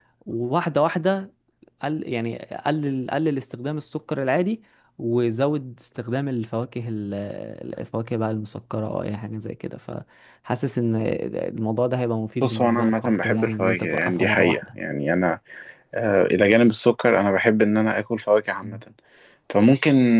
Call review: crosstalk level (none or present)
present